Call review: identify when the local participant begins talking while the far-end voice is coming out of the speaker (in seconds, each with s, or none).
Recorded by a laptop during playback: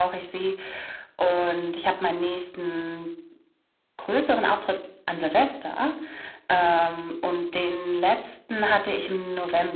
none